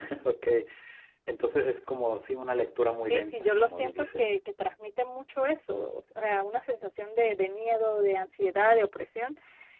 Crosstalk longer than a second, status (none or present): present